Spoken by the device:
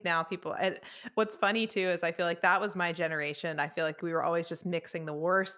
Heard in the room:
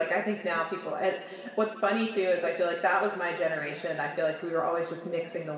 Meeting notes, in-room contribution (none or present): none